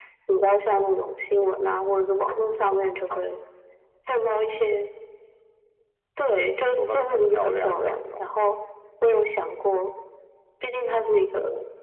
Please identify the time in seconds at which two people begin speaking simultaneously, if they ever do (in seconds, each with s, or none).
6.7 s